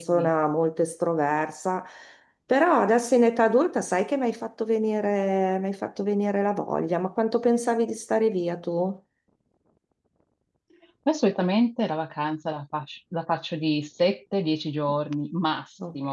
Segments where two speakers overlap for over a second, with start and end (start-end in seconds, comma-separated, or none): none